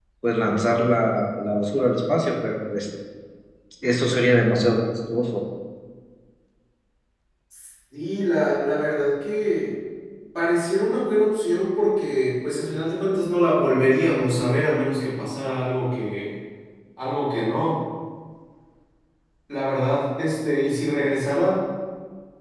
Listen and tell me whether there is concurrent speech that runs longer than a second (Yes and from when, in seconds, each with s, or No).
No